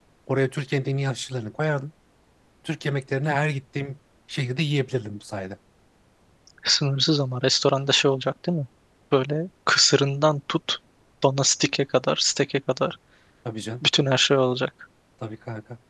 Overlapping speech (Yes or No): No